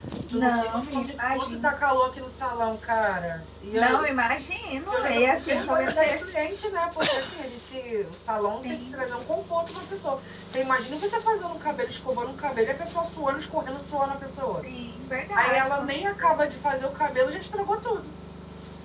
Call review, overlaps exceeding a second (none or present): present